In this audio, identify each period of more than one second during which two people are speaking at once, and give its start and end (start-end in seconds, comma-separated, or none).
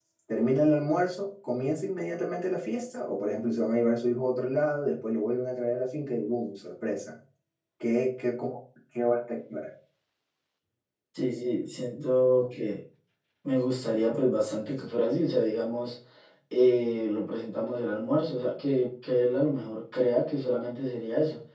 none